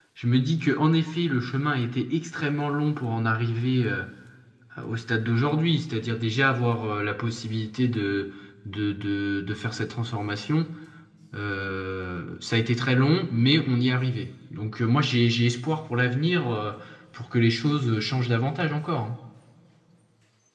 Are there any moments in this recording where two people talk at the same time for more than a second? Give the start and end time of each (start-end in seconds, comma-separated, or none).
none